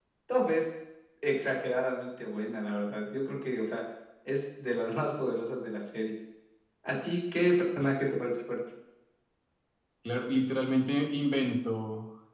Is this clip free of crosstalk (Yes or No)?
Yes